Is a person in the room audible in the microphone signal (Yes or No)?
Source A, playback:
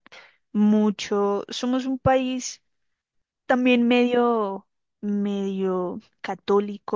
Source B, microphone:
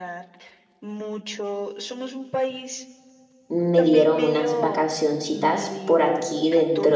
Yes